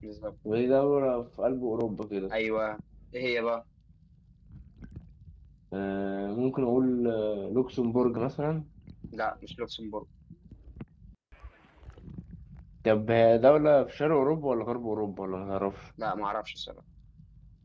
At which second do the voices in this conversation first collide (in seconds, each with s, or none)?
none